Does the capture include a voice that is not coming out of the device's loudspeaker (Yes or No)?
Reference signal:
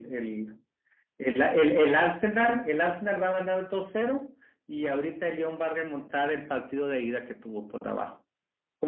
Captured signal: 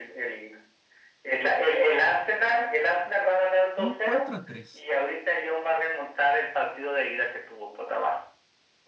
Yes